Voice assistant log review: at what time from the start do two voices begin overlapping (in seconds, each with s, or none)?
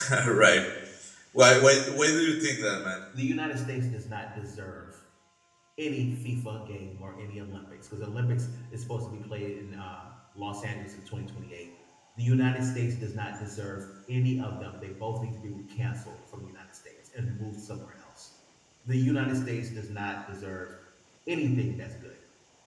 none